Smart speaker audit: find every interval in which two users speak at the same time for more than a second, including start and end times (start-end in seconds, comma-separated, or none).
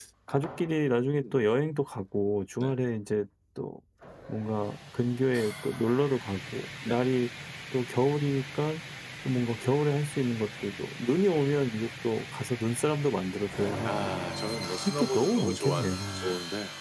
14.8-16.3